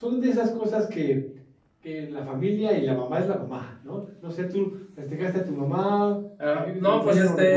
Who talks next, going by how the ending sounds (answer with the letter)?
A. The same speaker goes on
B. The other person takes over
B